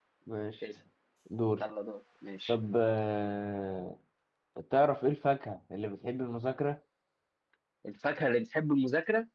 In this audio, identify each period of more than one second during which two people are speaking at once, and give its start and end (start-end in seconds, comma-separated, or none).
none